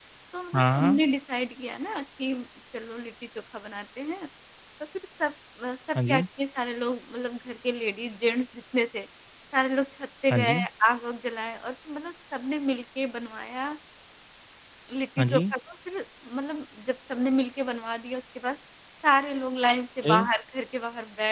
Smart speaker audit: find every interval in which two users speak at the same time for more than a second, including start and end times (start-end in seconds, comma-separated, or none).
none